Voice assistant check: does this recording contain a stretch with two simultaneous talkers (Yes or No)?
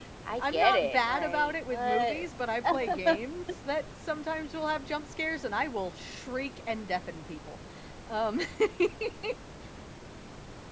Yes